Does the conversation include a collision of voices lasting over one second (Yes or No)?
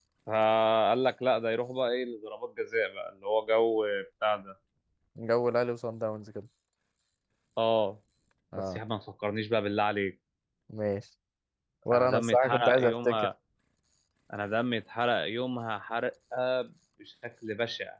Yes